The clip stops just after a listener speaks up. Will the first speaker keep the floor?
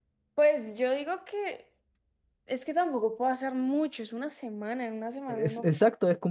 No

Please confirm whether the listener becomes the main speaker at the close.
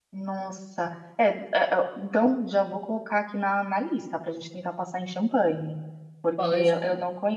No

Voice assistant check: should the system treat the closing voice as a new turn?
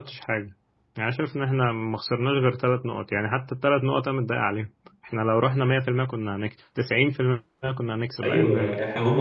Yes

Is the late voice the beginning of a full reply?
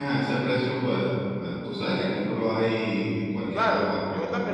Yes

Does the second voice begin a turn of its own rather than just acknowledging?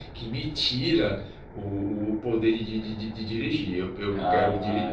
Yes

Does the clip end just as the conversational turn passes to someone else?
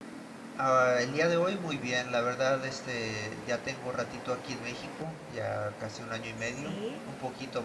No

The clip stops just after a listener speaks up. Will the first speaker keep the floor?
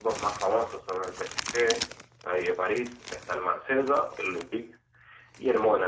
Yes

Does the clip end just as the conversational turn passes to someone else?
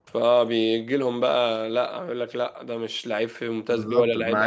Yes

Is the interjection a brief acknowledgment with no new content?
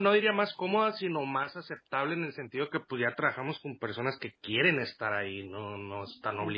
No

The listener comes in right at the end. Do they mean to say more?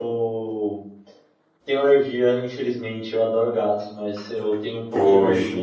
No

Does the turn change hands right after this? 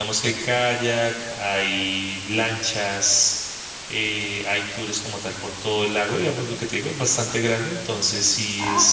No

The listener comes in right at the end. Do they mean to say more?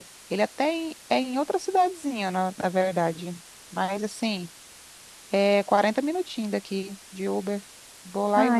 Yes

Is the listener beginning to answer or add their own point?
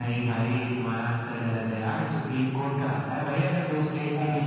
No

